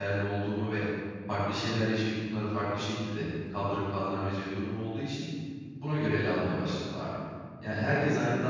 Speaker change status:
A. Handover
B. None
B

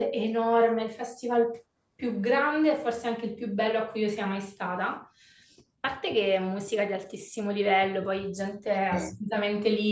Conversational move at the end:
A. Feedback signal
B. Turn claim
A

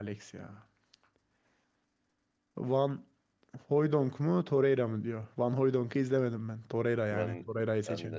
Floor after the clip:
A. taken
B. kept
A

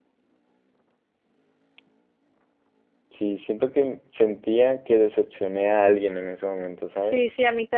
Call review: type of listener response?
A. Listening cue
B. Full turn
B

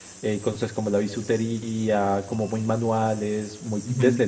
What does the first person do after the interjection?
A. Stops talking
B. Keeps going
B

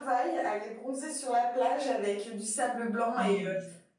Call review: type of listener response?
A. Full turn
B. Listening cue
B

